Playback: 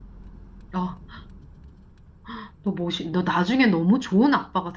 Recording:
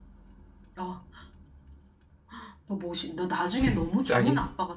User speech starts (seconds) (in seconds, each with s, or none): 3.5 s